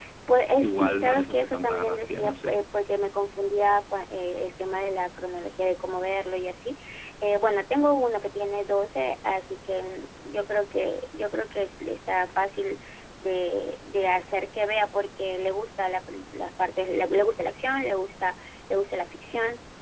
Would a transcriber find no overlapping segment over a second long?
No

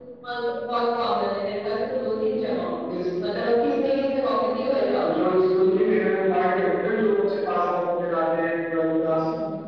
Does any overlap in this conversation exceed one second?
No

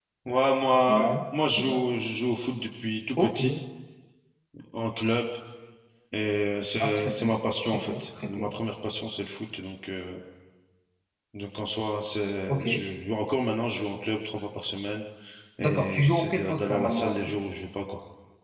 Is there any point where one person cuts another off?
Yes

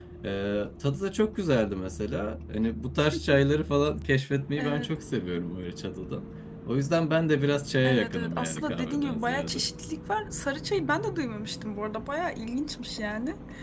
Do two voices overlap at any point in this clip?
Yes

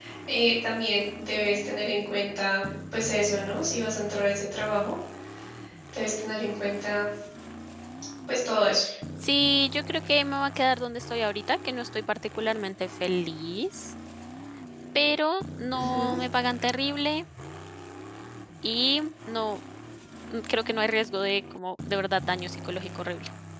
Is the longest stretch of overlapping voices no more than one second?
Yes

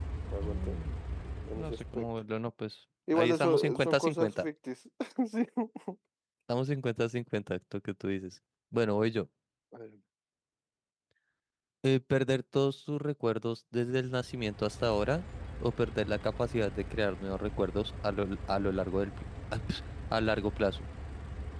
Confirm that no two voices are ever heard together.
No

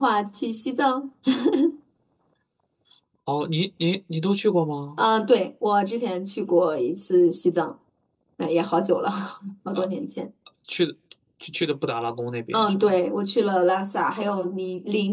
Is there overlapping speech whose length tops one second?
No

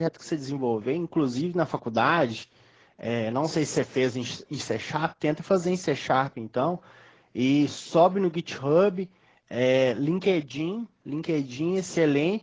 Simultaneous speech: No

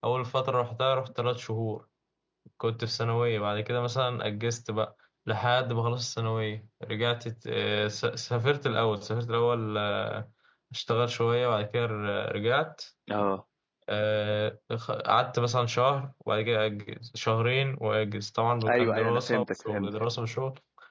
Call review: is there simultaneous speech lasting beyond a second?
Yes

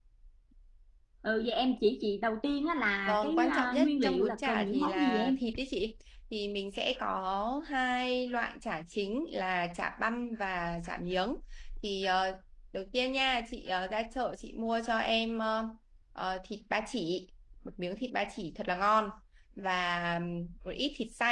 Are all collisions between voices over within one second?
No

